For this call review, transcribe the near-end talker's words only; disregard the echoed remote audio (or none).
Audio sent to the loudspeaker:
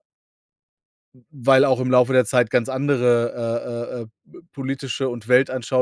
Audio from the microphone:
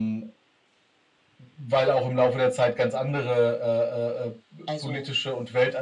also,